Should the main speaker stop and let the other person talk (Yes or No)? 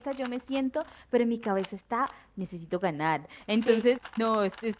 No